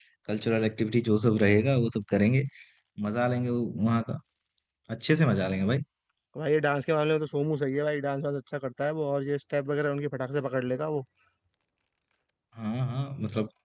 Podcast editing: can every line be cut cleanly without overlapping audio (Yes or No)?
Yes